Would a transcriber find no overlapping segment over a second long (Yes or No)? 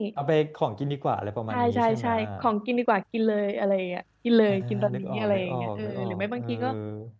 No